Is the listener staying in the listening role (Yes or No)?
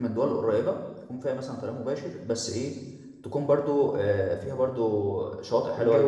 Yes